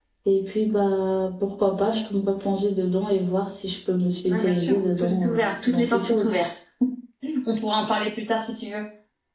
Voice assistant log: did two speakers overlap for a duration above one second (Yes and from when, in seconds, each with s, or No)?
Yes, from 4.3 s